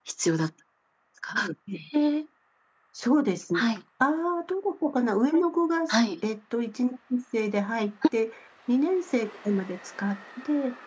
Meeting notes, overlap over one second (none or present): none